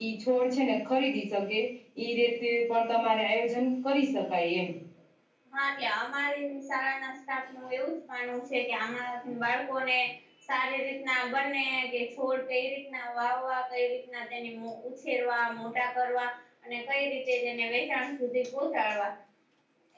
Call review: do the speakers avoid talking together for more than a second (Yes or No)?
Yes